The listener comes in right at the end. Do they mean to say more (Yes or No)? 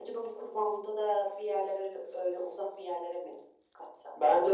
Yes